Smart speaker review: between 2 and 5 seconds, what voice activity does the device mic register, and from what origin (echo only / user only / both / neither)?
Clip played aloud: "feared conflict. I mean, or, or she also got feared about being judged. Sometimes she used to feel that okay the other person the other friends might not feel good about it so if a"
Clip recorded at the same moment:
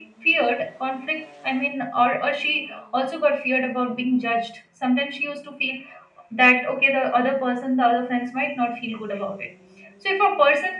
echo only